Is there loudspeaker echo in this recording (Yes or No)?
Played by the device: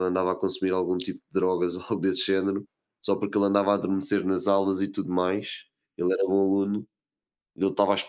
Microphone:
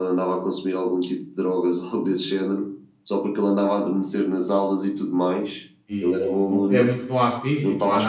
Yes